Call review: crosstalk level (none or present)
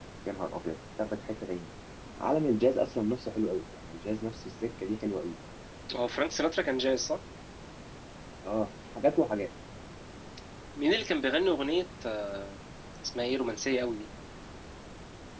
none